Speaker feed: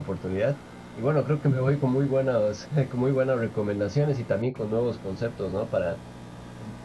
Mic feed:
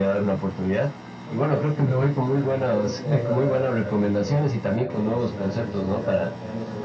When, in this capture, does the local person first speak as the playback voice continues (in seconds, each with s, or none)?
1.2 s